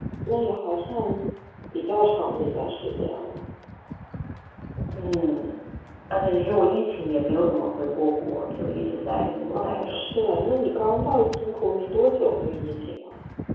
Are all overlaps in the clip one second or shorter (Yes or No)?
Yes